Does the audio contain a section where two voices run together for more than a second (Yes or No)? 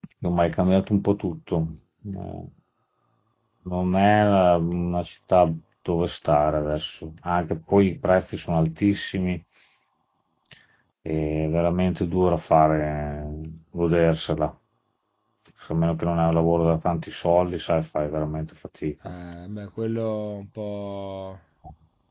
No